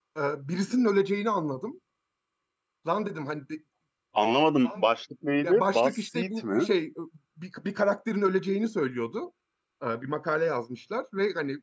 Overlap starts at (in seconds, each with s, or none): 5.4 s